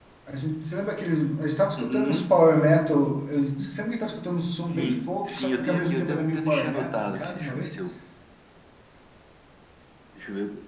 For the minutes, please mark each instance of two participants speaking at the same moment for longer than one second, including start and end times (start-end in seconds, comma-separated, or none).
4.6-7.7